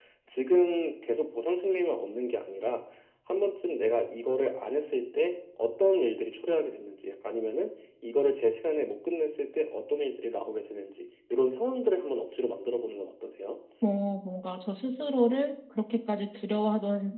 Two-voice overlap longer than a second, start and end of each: none

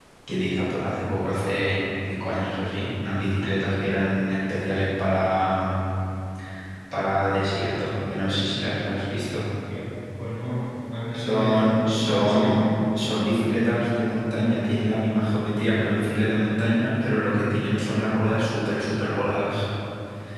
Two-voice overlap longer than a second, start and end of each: 11.1-12.7

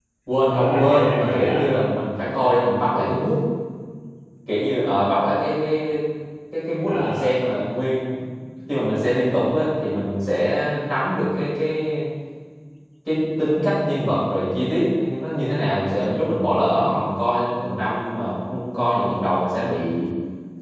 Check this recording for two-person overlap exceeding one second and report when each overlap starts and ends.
0.5-1.8

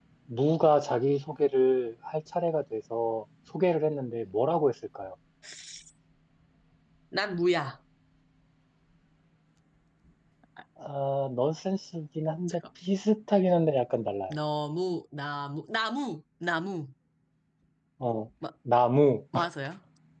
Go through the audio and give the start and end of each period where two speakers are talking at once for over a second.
none

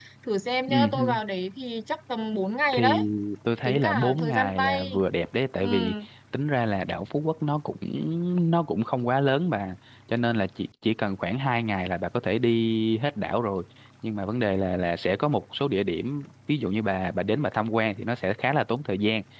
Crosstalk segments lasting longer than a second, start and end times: 3.6-4.9

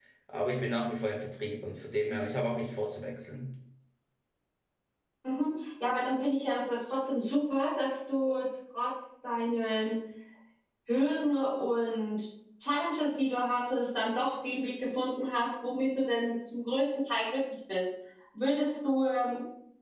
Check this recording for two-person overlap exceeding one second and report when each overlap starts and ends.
none

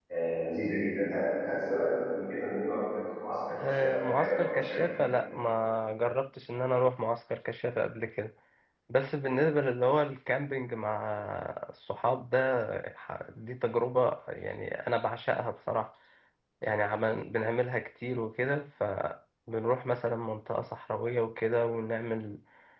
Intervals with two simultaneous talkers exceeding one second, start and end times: 3.5-4.8

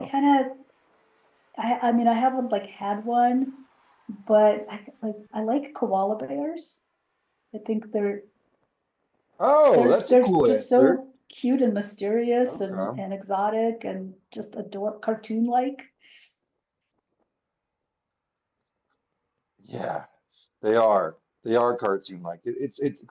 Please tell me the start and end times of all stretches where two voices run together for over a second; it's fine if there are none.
9.7-11.0

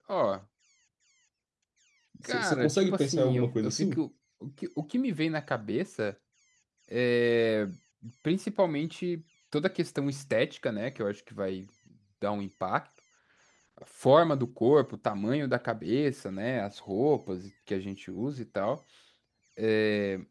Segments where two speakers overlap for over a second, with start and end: 2.2-4.0

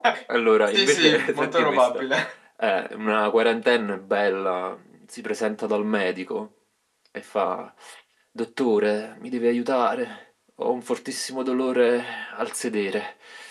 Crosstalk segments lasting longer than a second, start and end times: 0.7-2.0

